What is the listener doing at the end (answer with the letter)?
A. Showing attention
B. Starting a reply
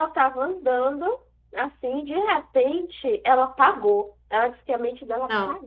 A